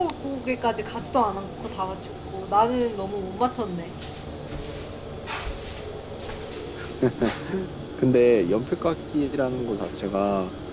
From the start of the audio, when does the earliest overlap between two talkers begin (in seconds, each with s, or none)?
none